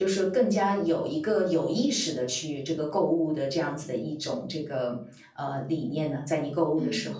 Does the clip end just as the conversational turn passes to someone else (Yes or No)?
Yes